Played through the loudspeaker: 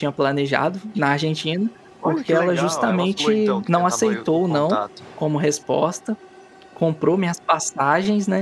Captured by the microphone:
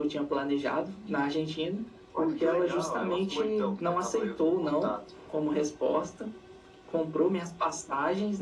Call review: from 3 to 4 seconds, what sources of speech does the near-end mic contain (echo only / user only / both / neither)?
echo only